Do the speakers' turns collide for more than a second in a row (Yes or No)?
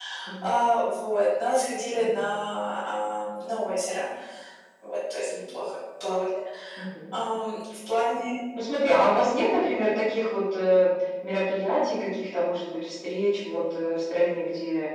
No